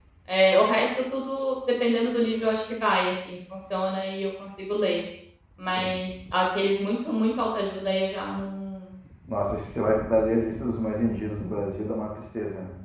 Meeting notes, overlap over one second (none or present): none